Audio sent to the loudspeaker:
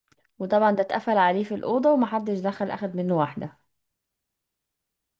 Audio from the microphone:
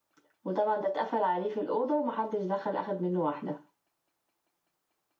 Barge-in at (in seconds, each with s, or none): none